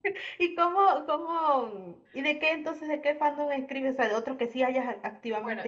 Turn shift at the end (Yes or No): Yes